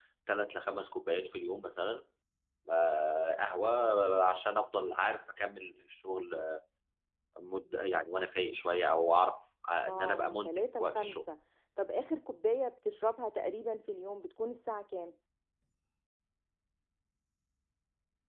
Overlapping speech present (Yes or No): Yes